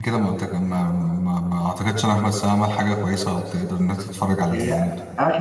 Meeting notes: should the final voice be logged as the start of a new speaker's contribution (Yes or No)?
Yes